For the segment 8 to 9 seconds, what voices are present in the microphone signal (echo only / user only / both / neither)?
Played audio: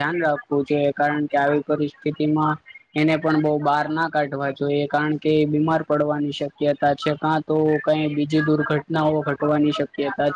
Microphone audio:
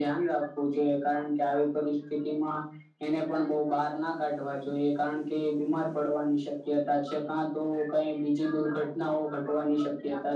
echo only